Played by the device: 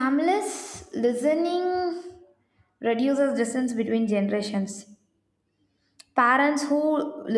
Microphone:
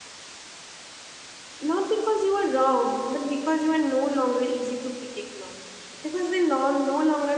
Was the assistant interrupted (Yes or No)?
Yes